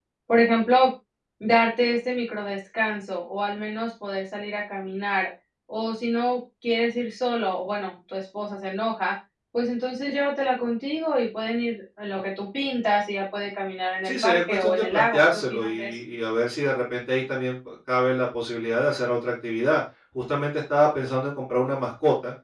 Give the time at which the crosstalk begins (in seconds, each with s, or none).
14.0 s